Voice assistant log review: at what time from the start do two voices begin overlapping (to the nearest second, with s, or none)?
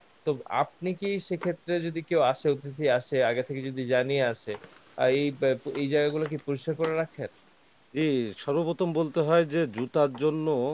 none